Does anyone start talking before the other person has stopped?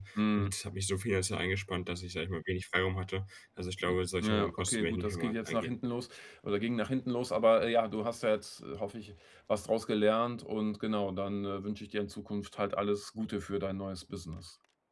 Yes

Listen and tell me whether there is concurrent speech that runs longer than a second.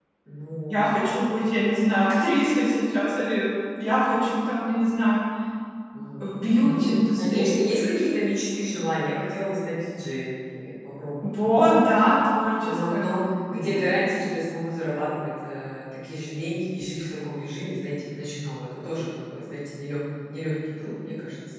Yes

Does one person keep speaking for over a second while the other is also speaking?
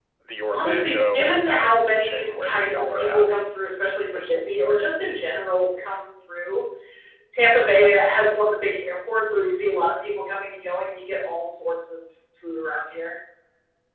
Yes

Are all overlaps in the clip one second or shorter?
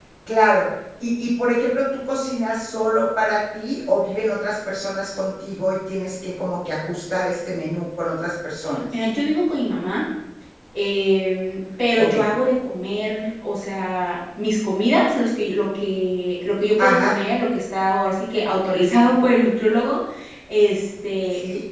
Yes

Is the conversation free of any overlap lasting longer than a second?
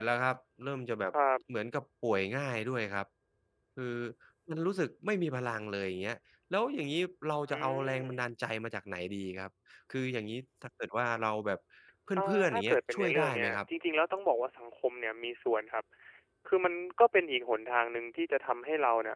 No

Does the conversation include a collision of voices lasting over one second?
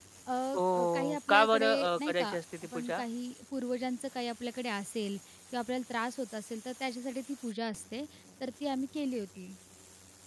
Yes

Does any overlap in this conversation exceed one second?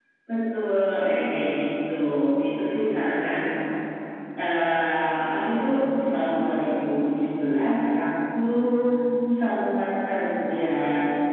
No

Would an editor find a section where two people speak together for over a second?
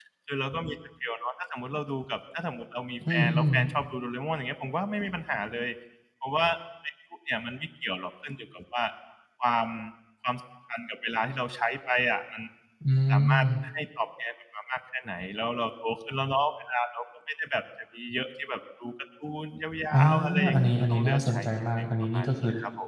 Yes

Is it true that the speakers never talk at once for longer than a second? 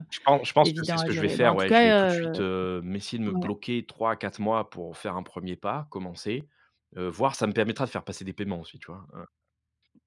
No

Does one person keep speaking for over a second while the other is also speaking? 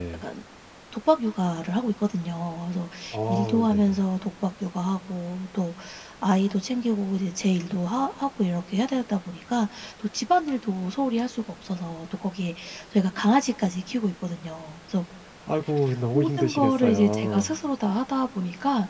Yes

